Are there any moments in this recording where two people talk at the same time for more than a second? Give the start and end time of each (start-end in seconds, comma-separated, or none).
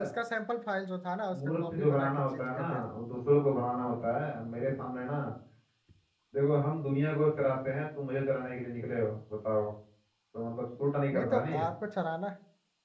1.4-2.8